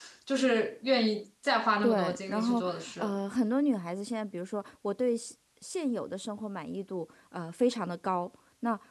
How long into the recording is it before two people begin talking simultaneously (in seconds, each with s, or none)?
1.8 s